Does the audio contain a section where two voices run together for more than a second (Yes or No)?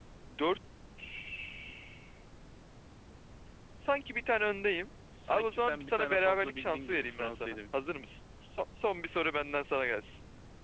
Yes